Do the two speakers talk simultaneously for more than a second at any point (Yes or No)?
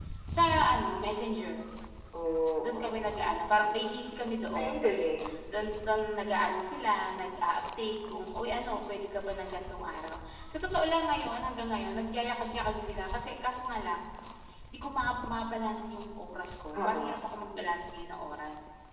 No